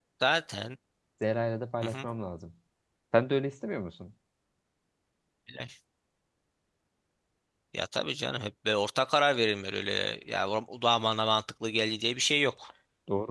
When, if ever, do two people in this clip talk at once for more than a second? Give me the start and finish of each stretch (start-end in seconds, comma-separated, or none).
none